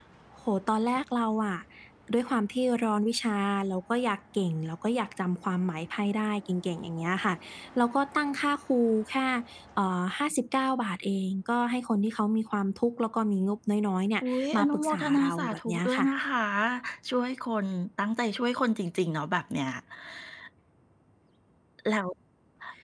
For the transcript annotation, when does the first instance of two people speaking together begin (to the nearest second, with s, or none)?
14 s